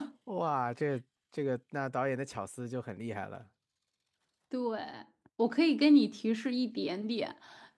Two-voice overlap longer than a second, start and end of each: none

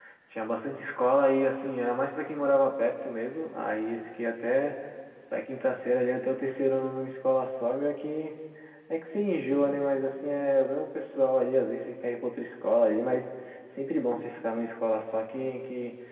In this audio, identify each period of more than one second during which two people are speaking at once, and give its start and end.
none

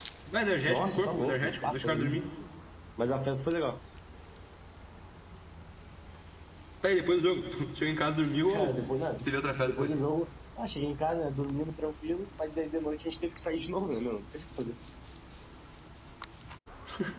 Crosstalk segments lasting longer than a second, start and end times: 0.7-2.2

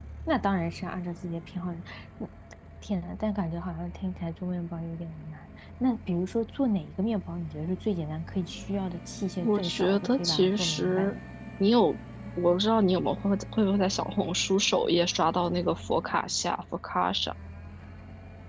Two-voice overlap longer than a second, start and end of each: 9.4-11.2

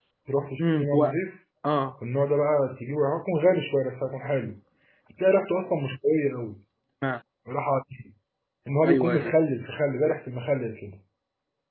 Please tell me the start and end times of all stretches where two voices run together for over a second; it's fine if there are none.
none

